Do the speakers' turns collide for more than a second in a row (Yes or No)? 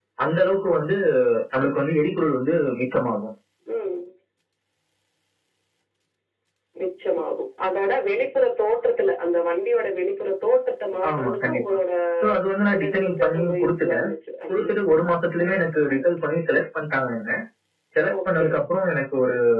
Yes